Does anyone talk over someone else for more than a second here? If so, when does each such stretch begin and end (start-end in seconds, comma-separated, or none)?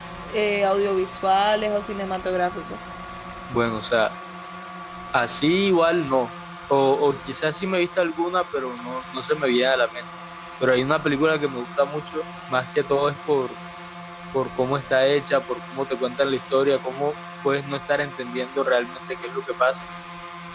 none